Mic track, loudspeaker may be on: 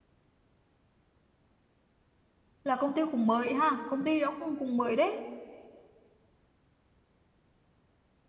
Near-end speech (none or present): present